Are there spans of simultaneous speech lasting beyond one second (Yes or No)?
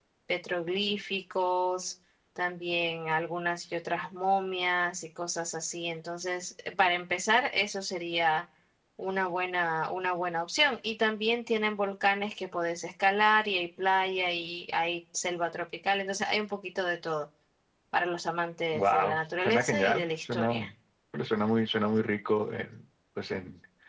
Yes